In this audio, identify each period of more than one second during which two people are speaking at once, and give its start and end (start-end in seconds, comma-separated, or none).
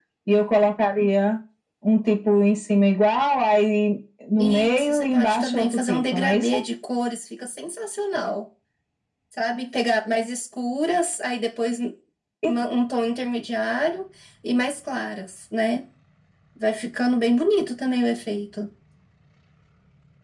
4.4-6.5